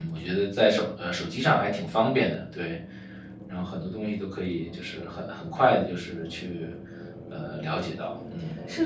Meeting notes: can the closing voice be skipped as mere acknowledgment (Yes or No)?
No